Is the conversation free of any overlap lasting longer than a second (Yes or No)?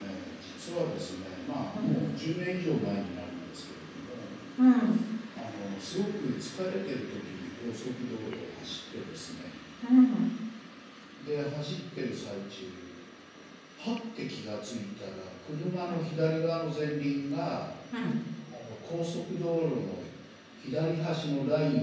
Yes